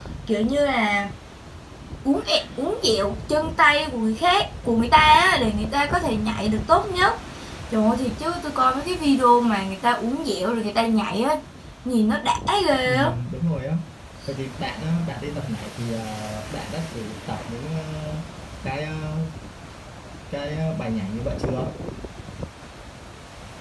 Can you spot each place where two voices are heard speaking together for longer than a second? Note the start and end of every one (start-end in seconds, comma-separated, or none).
none